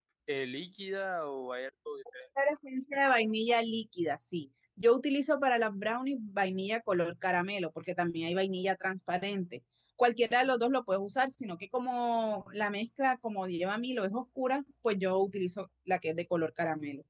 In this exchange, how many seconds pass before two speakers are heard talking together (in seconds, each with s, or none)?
none